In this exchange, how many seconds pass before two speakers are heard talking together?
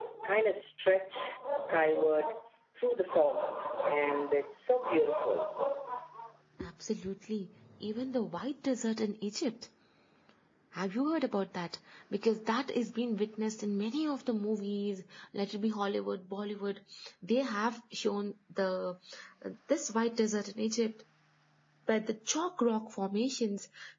none

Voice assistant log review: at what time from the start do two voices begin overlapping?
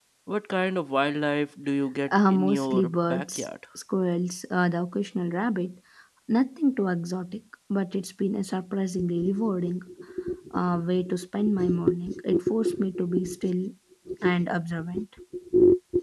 2 s

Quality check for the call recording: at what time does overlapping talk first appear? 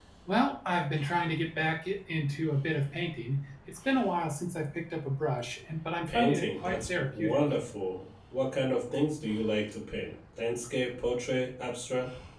6 s

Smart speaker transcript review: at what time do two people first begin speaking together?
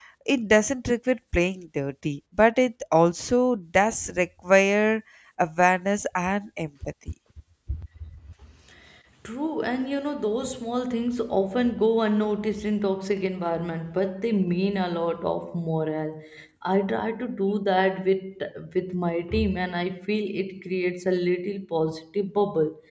none

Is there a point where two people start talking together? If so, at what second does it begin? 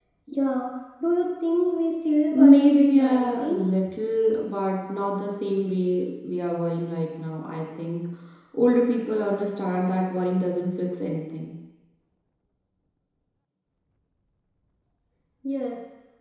2 s

